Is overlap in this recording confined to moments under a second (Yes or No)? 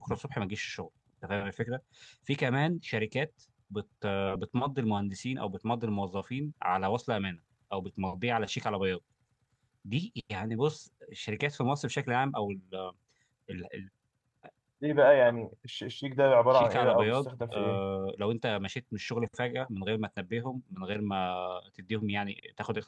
No